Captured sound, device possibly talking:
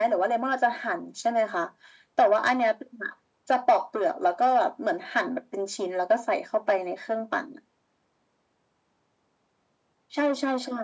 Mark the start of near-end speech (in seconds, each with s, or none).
none